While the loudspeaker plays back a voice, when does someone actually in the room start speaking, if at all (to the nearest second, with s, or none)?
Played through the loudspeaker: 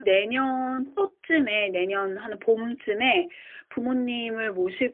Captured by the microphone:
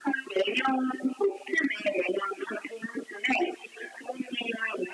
none